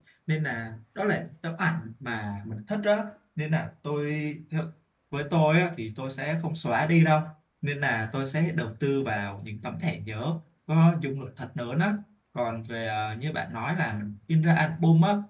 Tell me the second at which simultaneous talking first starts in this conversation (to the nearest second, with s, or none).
none